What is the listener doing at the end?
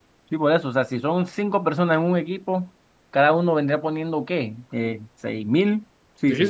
taking over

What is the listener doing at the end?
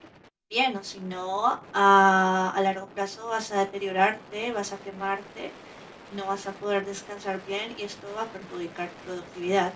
taking over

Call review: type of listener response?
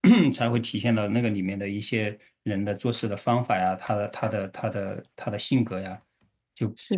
taking over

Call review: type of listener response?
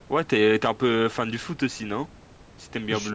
taking over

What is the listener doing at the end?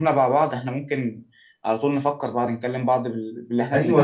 taking over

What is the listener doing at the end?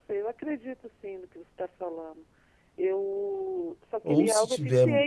taking over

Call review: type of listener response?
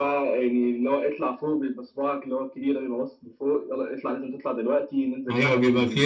taking over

